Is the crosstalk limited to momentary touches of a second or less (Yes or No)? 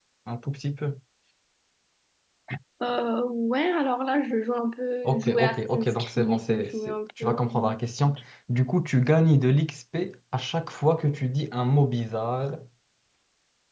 No